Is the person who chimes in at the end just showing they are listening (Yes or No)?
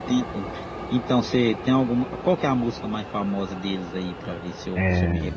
No